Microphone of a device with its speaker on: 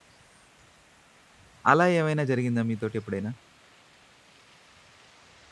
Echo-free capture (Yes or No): Yes